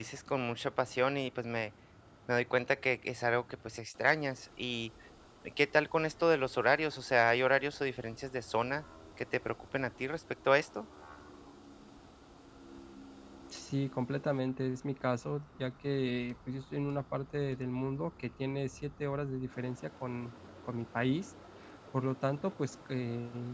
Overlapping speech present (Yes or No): No